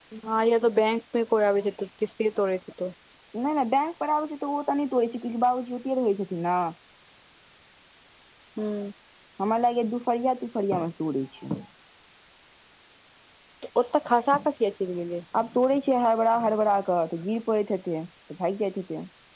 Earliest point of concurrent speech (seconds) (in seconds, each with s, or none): none